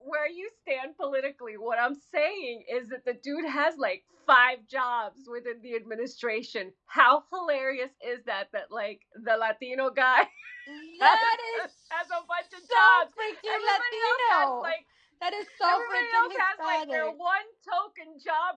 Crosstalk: present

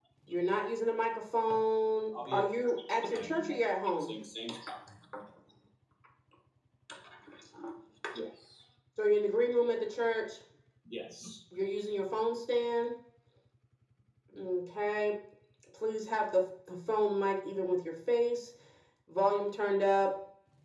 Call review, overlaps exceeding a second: present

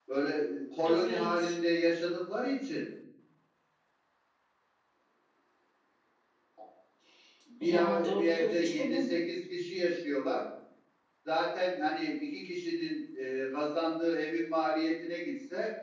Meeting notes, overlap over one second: present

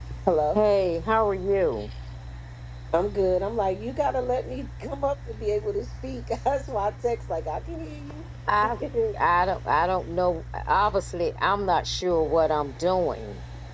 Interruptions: none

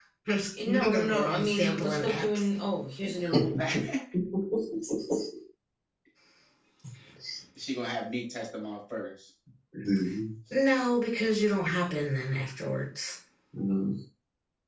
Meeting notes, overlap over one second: present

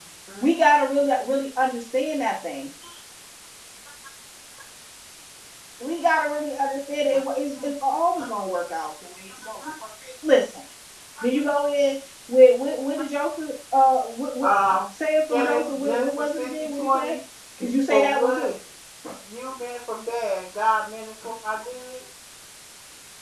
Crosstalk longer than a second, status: present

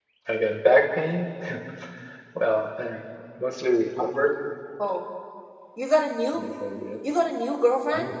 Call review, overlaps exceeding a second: none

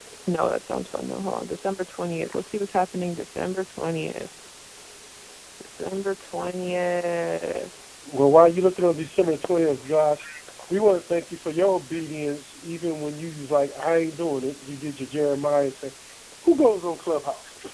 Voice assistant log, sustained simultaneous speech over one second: none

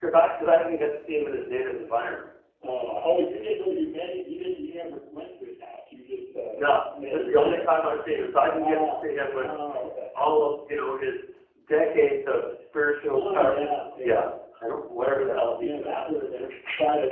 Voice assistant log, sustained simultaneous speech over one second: present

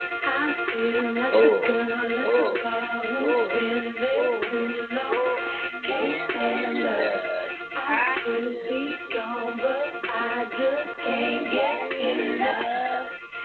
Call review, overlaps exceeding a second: present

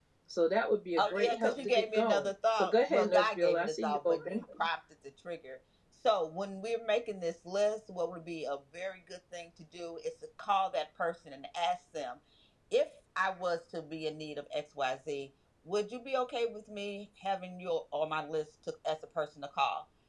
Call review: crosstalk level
present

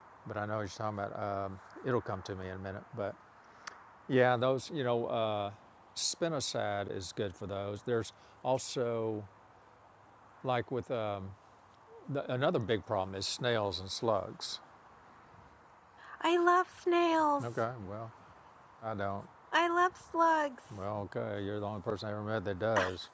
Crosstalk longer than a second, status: none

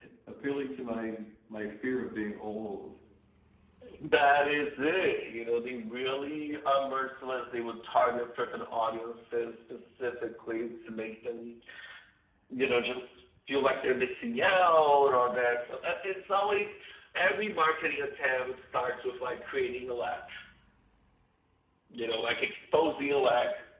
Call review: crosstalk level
none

